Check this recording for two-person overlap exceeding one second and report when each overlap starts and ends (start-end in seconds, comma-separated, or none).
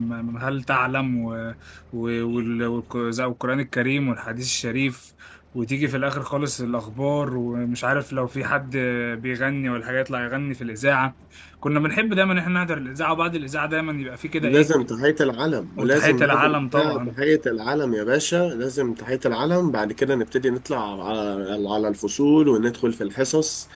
15.8-17.1